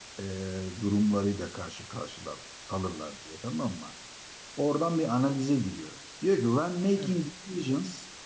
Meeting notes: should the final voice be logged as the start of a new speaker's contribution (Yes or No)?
No